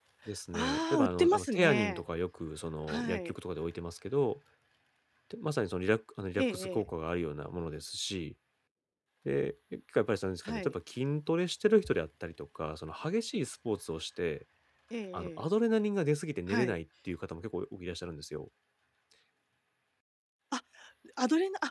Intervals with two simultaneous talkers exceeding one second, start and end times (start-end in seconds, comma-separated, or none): 0.5-2.0